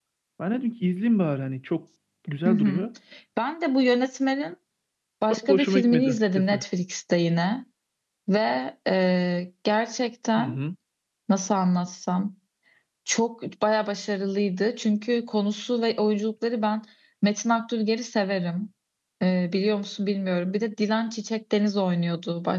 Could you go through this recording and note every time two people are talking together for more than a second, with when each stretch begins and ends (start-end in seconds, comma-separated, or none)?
5.3-6.6